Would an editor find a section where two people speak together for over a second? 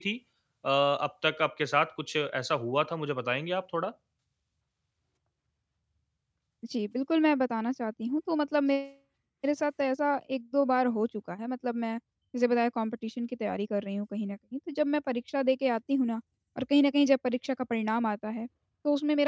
No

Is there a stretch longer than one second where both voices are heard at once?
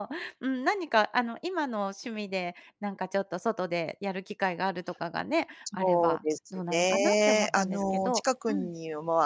Yes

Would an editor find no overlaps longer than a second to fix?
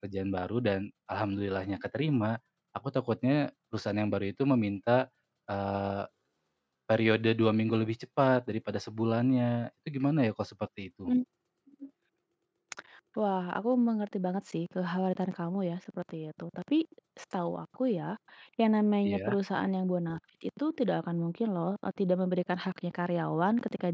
Yes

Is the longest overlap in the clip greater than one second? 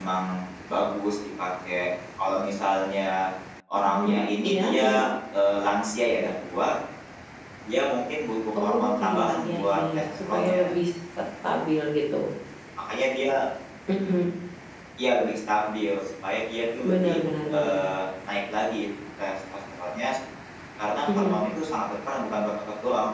Yes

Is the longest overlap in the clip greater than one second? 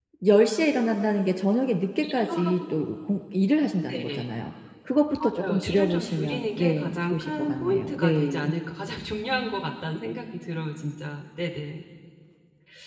Yes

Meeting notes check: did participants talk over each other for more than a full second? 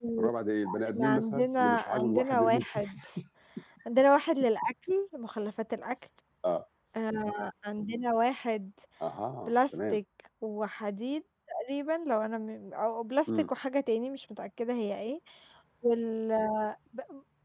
Yes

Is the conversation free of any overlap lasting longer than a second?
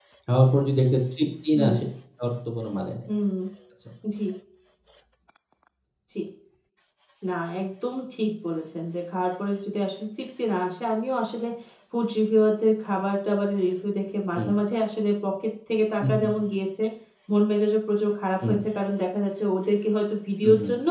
Yes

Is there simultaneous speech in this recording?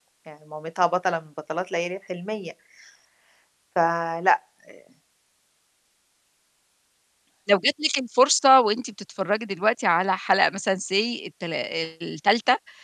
No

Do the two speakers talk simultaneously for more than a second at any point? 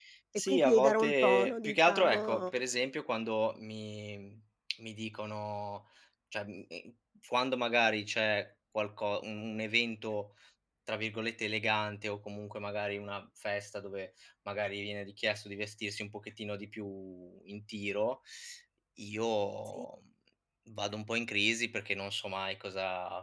Yes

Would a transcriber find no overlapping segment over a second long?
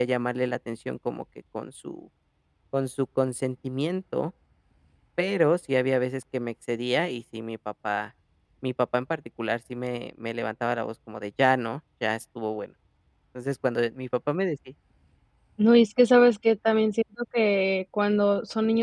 Yes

